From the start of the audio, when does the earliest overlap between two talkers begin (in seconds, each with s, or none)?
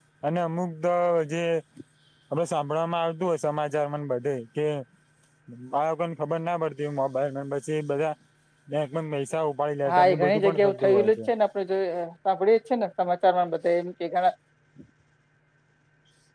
9.8 s